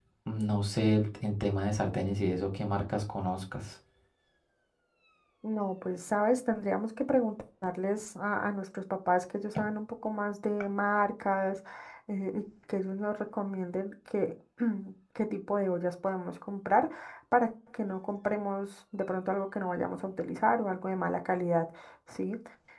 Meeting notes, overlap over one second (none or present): none